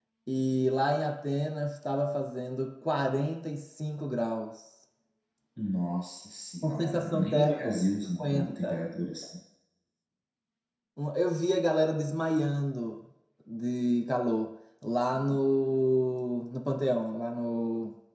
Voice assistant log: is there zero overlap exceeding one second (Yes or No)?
No